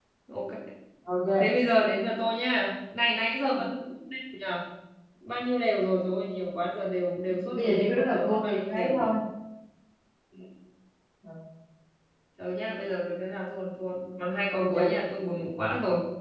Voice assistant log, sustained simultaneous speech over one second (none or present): present